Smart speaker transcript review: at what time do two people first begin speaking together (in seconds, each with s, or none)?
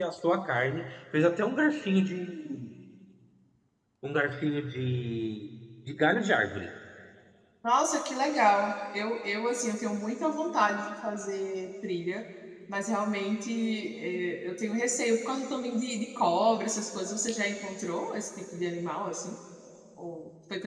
none